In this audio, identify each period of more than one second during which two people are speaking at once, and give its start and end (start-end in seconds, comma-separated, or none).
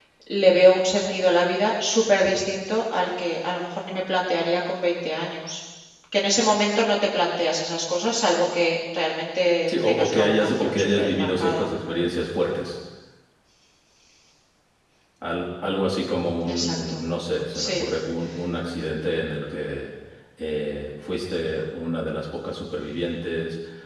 9.7-11.7